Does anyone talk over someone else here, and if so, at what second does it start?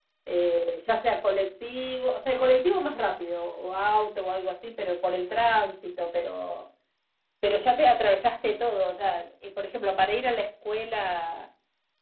none

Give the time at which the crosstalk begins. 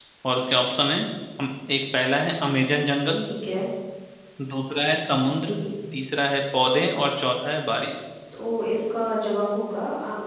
none

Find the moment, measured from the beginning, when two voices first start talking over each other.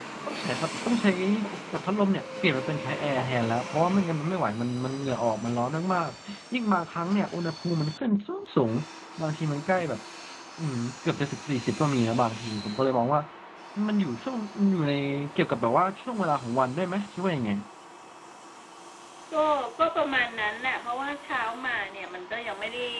none

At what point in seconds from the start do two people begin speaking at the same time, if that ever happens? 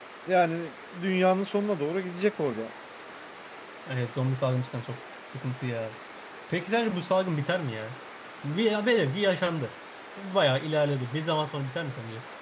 none

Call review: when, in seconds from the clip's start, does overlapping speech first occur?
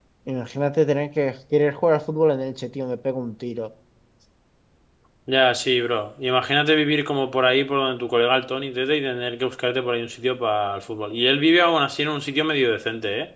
none

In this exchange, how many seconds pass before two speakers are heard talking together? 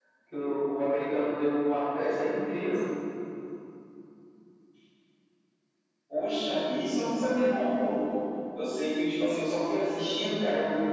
none

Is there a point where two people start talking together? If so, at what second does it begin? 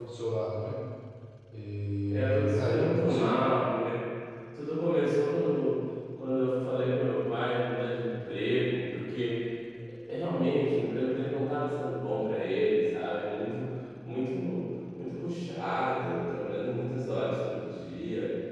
2.1 s

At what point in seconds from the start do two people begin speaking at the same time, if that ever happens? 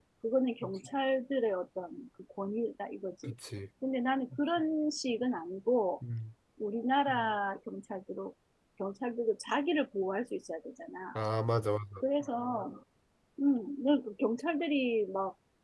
none

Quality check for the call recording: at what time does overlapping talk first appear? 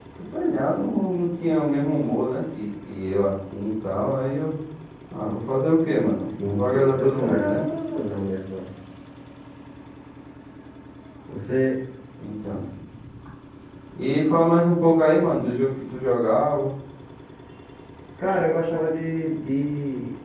6.4 s

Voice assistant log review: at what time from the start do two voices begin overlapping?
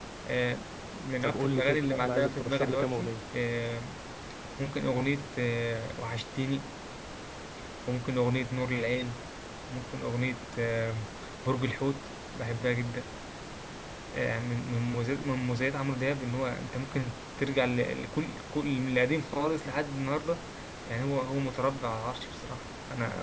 1.2 s

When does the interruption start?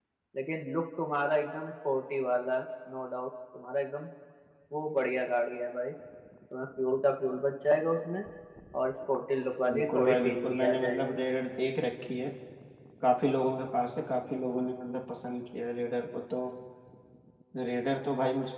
9.7 s

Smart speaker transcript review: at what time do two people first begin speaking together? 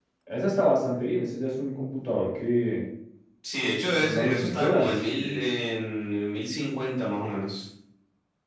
4.0 s

